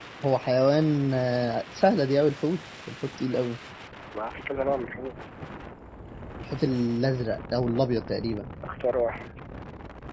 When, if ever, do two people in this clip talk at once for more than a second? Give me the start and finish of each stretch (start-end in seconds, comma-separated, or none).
none